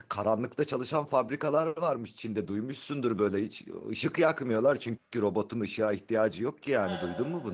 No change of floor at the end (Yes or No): No